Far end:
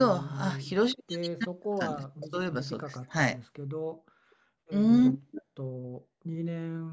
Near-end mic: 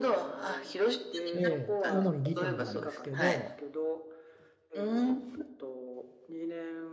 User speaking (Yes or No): Yes